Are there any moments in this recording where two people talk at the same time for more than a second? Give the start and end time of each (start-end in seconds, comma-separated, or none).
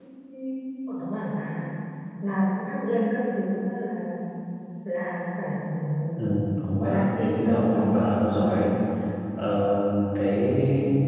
6.8-8.6